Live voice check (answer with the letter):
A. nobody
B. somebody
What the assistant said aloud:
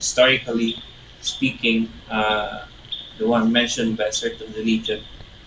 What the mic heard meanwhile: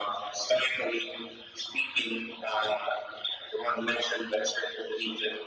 A